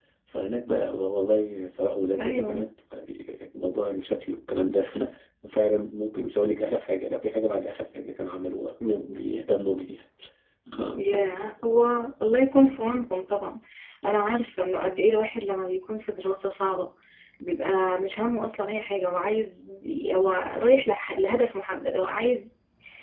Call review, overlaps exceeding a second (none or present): none